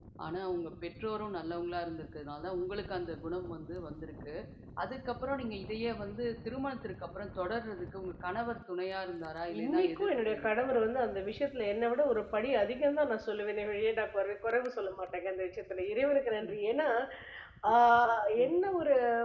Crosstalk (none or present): present